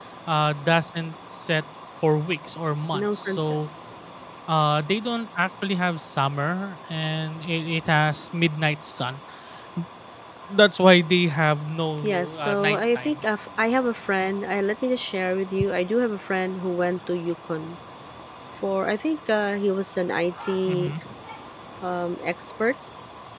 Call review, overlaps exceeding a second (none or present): present